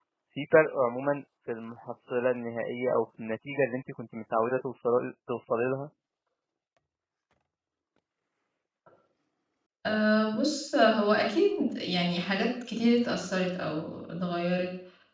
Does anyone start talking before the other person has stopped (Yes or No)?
No